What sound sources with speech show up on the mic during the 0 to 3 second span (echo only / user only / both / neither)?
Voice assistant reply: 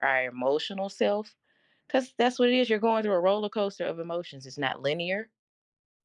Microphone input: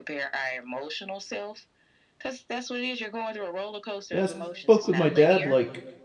echo only